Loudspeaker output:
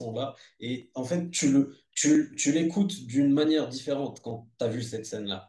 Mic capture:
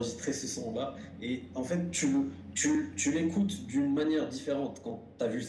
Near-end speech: none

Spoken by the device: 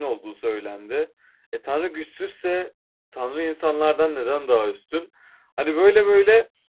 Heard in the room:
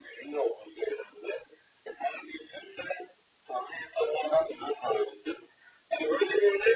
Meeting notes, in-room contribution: none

